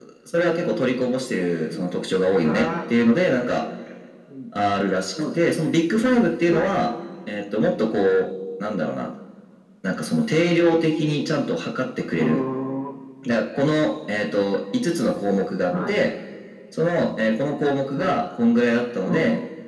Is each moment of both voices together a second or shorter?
Yes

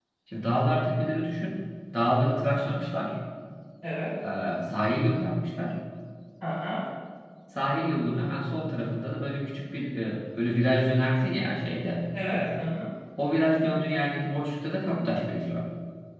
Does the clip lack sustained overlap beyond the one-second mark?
Yes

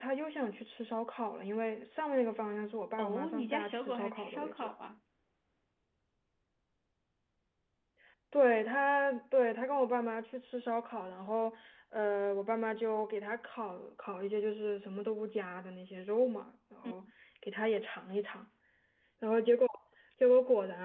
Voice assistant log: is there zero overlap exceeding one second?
No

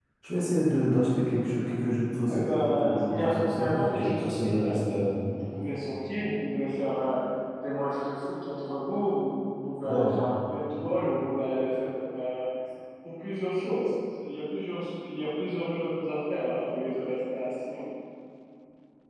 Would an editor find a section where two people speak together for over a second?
Yes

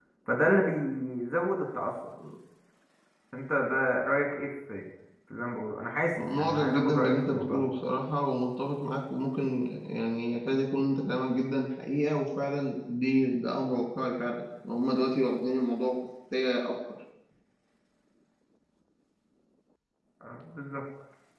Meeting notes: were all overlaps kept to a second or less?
No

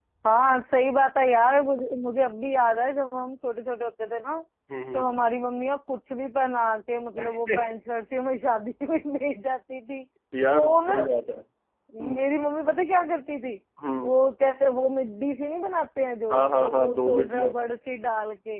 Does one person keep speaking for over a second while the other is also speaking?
Yes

